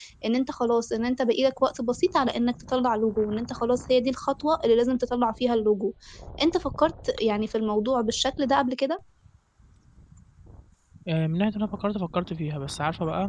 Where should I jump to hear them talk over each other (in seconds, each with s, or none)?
none